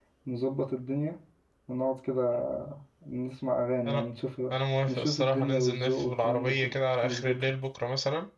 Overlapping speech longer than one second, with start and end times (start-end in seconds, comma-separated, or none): 4.9-7.5